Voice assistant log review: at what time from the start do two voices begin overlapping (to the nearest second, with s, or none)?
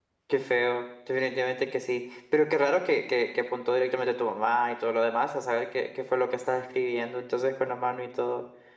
none